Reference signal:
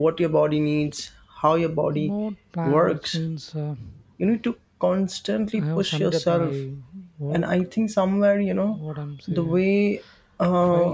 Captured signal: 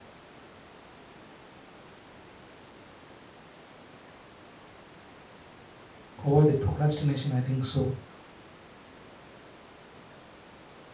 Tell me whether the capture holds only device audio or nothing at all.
No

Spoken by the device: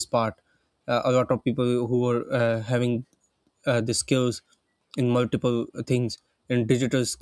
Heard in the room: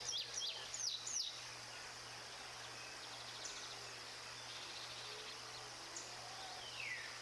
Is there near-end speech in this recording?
No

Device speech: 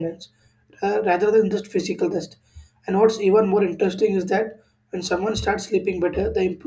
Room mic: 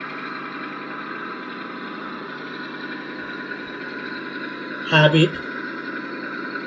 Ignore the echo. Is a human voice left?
Yes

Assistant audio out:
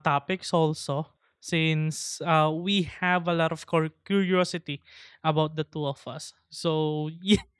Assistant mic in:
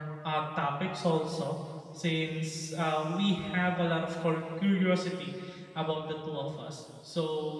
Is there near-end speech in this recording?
No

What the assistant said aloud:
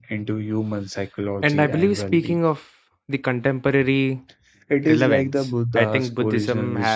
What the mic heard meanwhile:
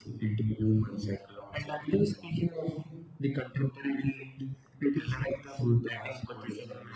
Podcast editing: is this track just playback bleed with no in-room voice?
Yes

